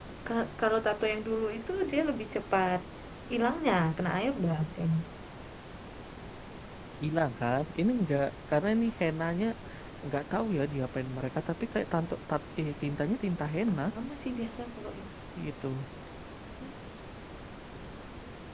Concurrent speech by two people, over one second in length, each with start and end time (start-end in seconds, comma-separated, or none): none